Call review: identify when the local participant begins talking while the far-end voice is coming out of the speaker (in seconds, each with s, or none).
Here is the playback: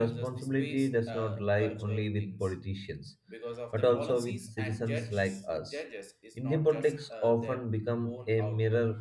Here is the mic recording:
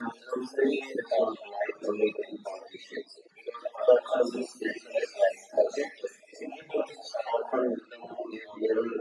none